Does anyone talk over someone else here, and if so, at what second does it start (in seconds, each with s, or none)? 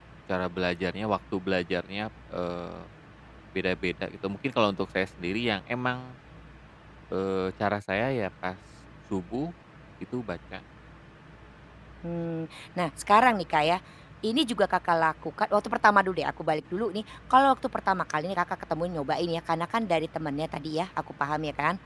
none